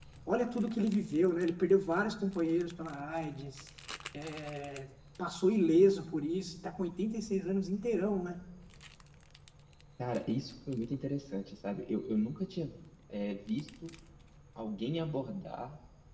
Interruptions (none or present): none